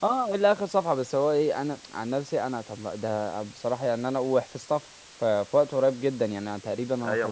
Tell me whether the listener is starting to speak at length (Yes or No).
Yes